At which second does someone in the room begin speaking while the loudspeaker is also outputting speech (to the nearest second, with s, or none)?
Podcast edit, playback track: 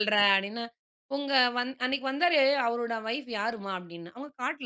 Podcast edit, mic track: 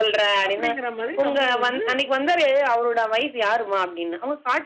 0 s